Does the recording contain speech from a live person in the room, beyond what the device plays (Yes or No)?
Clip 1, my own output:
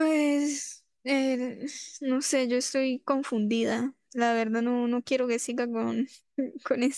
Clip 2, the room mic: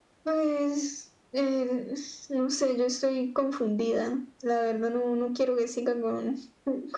No